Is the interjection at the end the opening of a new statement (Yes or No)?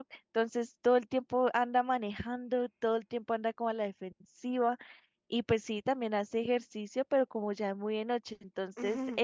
No